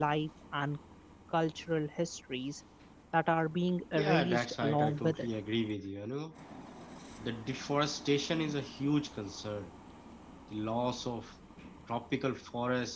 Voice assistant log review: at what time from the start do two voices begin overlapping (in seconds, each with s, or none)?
4.0 s